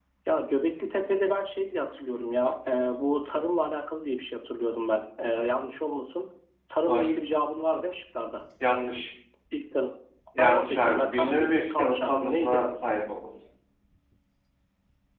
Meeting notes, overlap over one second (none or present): present